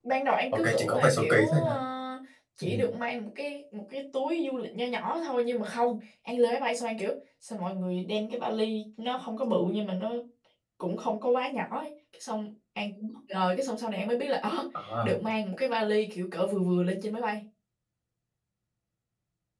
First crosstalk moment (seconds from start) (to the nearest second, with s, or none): 1 s